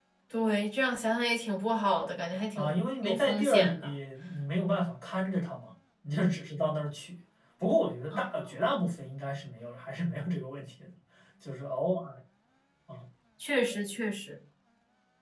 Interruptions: present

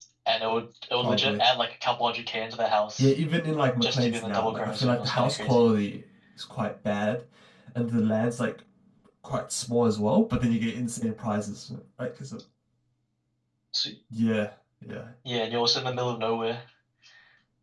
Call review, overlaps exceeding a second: present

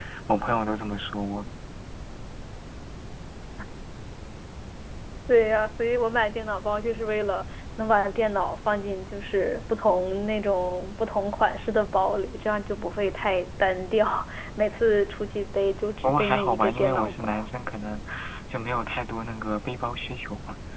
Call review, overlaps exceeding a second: present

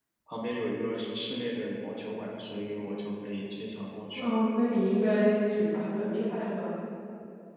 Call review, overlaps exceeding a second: none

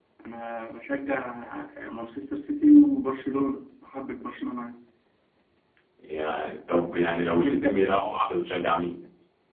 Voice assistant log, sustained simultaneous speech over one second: none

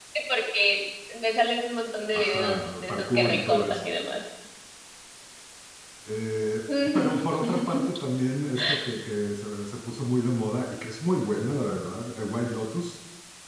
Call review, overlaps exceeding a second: present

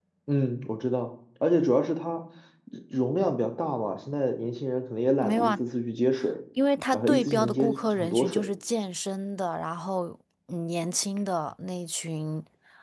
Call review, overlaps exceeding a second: present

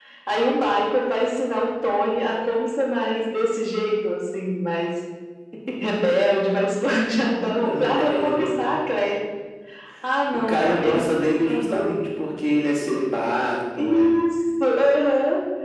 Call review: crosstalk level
present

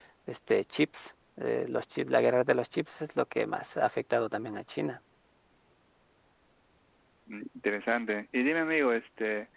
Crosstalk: none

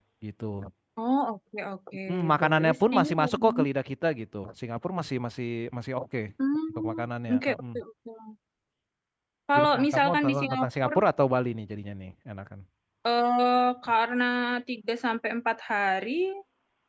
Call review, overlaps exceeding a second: present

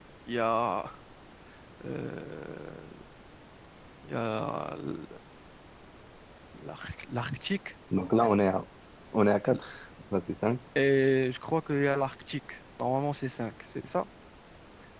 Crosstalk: none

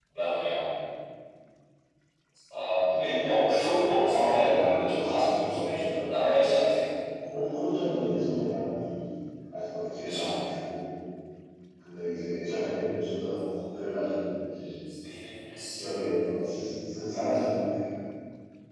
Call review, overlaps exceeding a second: present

